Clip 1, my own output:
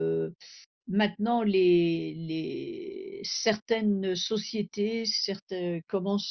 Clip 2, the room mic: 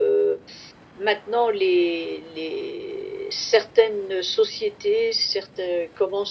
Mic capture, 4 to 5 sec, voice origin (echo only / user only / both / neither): echo only